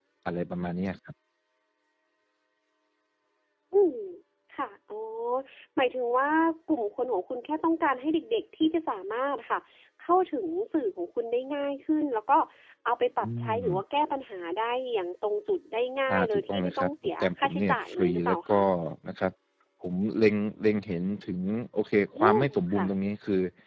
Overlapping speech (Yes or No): Yes